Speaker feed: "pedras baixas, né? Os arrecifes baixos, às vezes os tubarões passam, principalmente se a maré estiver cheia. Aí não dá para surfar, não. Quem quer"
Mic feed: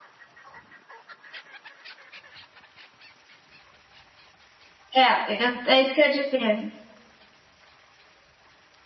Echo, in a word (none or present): none